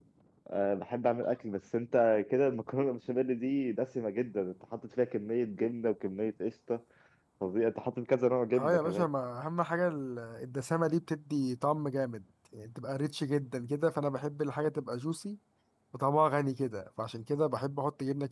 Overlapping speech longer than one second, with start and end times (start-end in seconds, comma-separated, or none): none